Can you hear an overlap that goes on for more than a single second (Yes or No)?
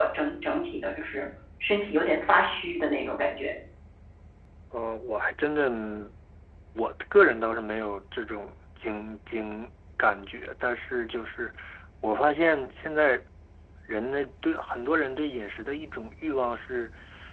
No